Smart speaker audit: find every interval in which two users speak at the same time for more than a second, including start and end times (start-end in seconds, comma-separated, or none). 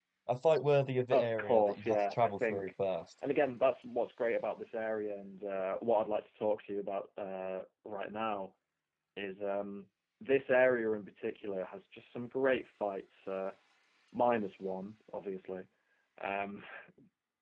1.1-2.7